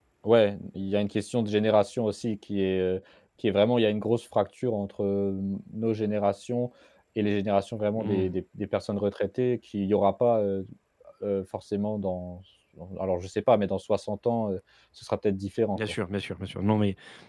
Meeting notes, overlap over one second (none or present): none